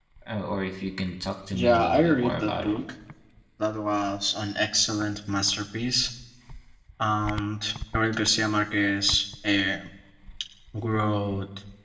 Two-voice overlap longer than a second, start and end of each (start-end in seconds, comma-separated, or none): 1.5-2.8